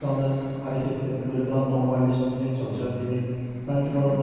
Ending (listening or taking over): taking over